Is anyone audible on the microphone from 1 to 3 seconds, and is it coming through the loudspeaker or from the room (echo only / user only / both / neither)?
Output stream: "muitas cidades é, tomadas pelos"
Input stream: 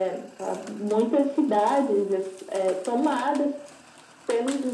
echo only